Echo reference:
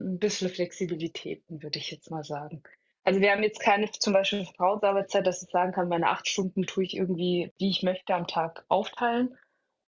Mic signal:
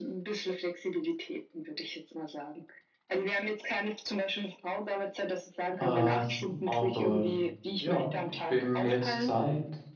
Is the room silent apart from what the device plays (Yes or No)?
No